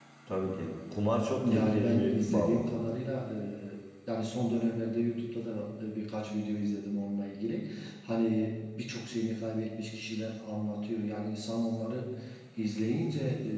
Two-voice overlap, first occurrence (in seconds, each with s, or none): 1.4 s